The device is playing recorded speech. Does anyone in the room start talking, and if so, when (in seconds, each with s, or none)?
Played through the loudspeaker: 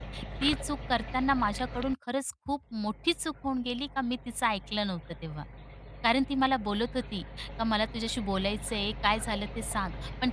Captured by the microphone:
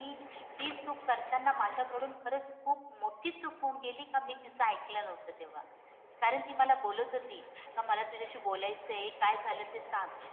none